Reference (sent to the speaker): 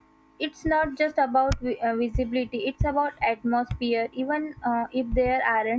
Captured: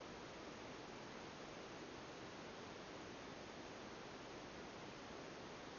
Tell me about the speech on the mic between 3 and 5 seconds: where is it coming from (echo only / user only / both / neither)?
neither